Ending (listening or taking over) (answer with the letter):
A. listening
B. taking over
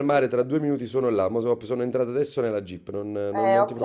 B